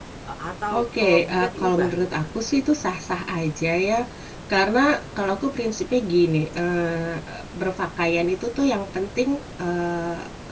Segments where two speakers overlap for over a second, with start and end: 0.7-2.2

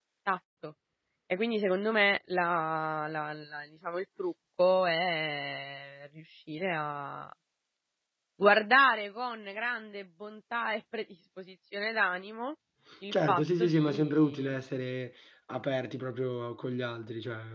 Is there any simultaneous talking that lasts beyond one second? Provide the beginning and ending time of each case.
13.1-14.6

